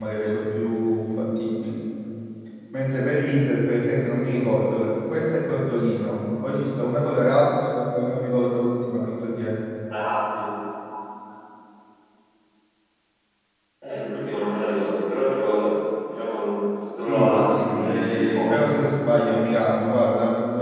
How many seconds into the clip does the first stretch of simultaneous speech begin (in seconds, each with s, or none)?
17.0 s